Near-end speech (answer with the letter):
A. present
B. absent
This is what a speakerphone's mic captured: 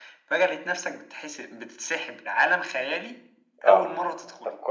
A